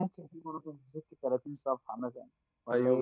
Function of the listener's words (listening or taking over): taking over